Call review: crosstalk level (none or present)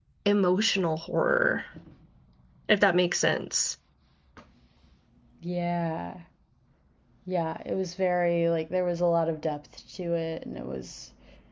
none